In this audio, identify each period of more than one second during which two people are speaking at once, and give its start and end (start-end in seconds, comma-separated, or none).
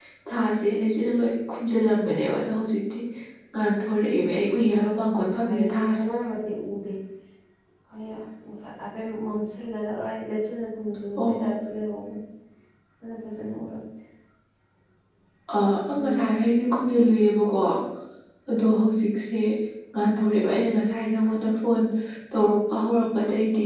4.5-6.0